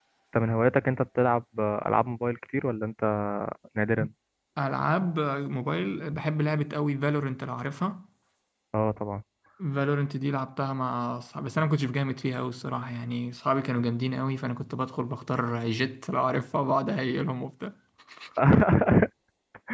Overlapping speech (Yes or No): No